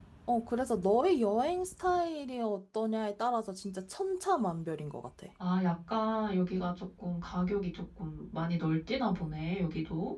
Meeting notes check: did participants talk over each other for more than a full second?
No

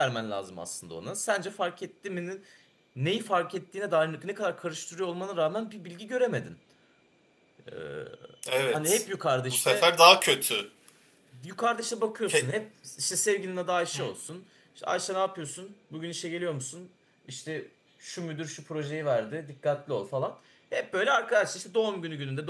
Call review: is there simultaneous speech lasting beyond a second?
No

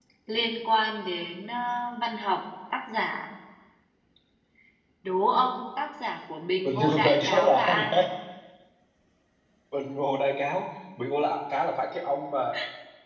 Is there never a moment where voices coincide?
No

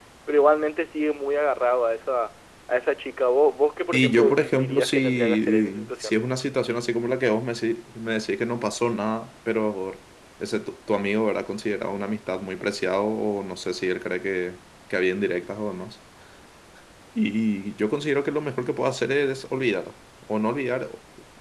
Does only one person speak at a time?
No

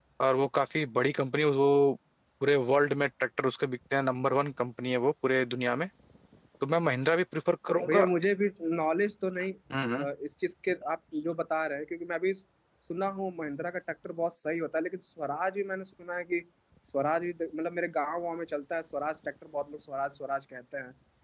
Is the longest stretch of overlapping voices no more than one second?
Yes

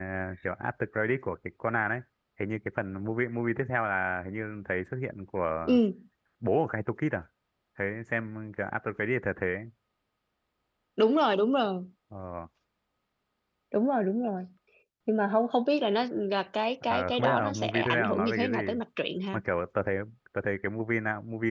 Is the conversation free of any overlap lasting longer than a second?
No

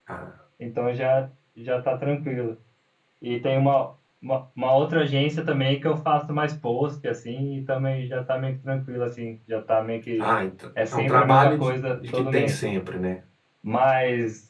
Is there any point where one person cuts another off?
Yes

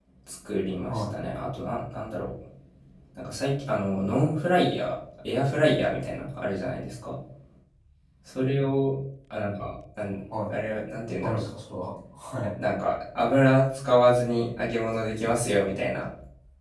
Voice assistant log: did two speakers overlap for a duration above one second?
No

